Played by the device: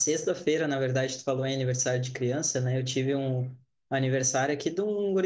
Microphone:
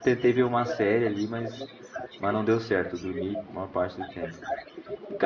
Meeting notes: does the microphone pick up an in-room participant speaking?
Yes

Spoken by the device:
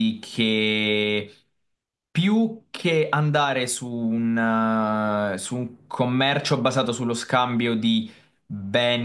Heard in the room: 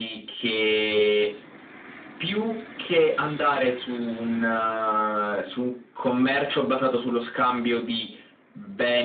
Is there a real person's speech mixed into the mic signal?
No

